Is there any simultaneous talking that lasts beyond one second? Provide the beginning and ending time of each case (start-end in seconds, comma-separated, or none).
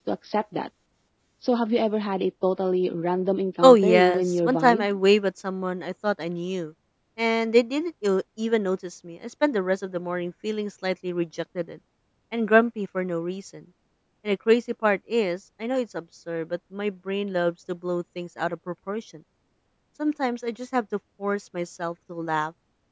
3.6-4.9